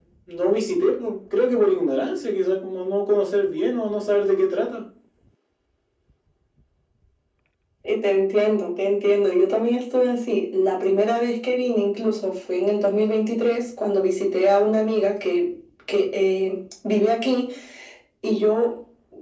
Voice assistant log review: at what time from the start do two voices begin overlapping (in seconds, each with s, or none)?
none